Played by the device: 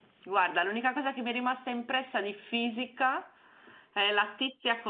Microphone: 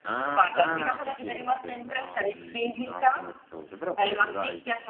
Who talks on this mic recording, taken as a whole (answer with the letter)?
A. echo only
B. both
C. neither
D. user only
B